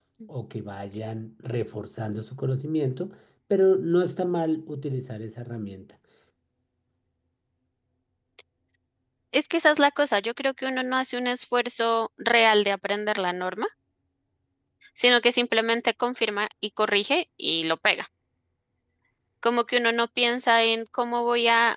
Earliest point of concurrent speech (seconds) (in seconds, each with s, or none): none